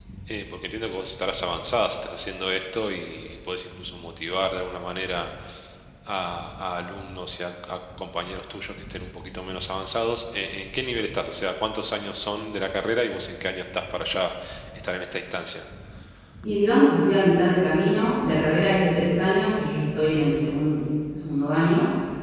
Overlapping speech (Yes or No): No